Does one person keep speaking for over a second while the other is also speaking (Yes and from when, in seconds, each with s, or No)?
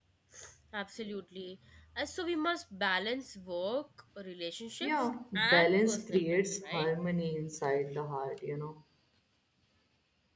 Yes, from 4.8 s